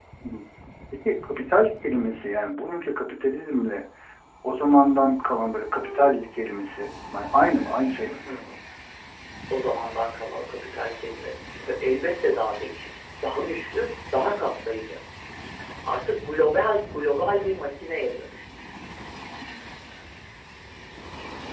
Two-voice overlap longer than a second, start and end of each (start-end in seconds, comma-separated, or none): none